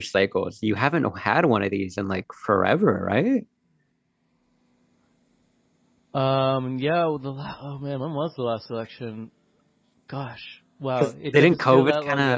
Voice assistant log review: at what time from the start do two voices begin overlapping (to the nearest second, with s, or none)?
11 s